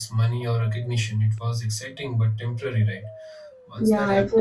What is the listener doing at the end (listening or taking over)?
taking over